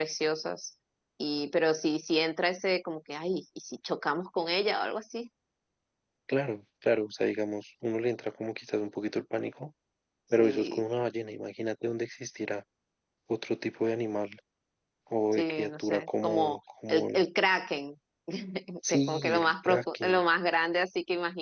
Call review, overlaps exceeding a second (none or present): present